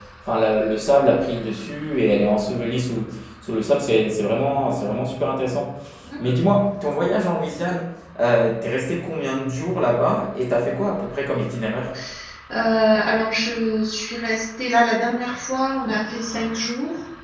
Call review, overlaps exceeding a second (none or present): none